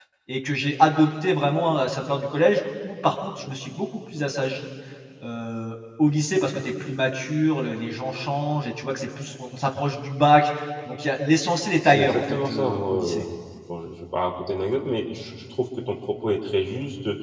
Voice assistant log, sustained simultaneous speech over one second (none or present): present